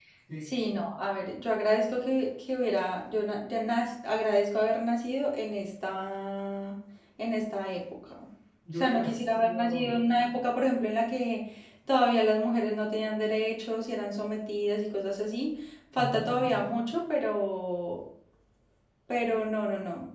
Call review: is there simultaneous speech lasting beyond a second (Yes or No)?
Yes